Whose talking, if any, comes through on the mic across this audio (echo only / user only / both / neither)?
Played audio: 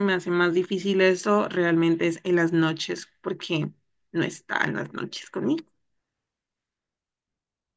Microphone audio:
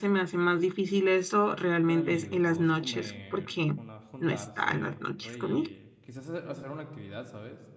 both